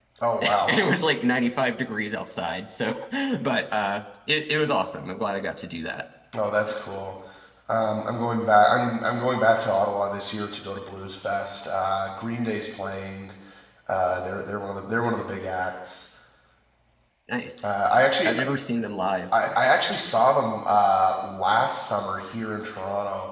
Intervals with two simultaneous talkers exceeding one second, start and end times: none

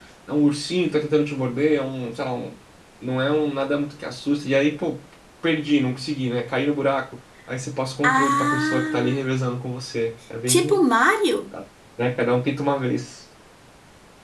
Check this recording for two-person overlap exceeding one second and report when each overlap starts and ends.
8.0-9.3

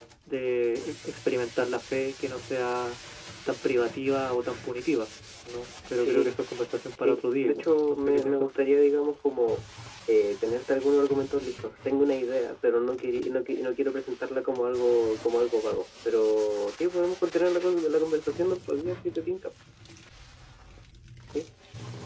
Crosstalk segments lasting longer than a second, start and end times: 7.0-8.5

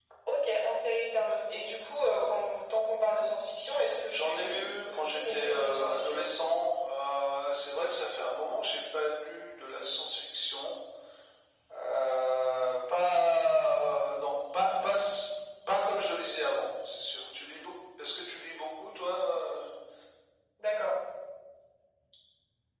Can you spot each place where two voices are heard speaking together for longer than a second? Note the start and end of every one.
4.1-6.2

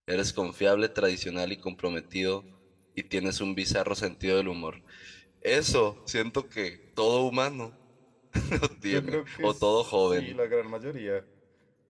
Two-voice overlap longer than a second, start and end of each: 8.9-10.3

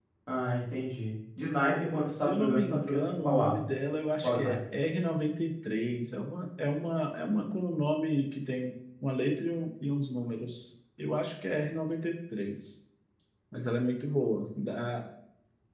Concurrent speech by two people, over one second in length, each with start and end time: 2.1-3.6

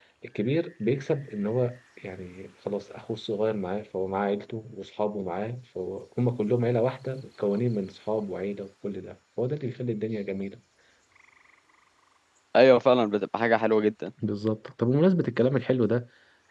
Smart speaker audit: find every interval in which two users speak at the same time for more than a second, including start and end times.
none

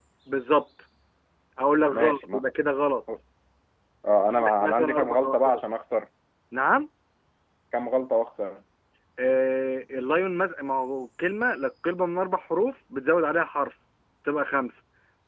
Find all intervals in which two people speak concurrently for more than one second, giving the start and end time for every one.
4.2-5.6

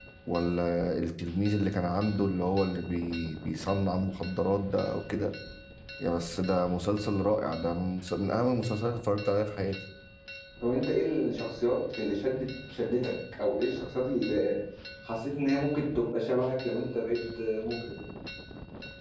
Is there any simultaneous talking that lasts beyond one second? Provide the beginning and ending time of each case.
none

